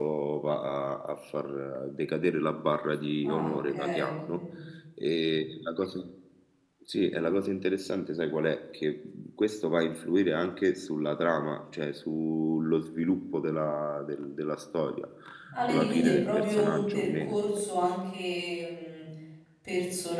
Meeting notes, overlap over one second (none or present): present